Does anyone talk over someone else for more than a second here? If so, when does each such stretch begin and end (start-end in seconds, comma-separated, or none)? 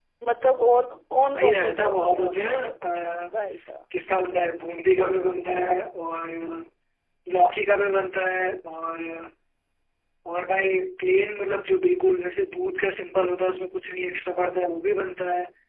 1.3-2.6